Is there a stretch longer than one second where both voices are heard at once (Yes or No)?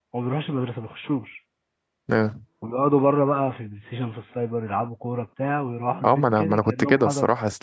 Yes